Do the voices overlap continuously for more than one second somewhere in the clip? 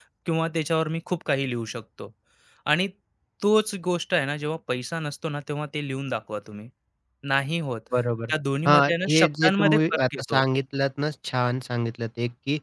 Yes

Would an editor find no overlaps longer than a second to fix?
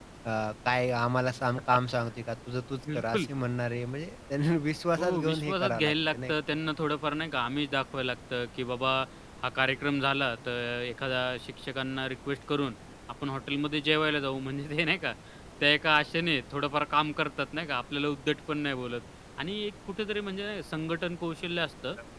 No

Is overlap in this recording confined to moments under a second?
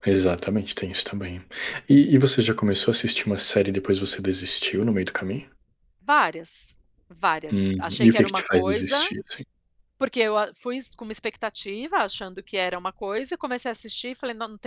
No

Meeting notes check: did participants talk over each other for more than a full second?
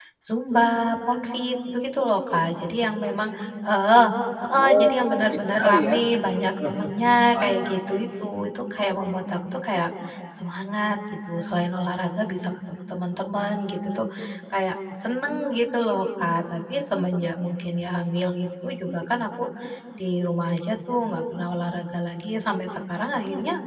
Yes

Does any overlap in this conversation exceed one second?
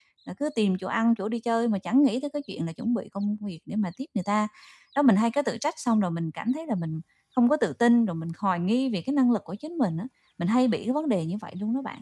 No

